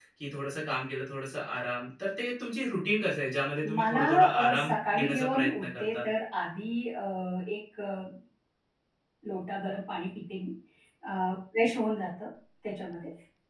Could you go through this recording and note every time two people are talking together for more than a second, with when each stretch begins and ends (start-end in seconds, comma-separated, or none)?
3.8-6.0